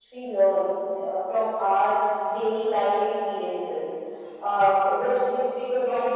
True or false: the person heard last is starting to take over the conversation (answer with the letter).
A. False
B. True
A